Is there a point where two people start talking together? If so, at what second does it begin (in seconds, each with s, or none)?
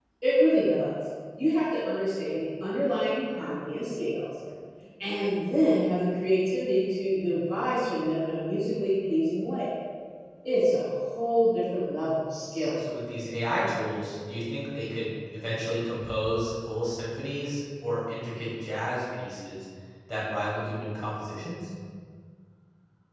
none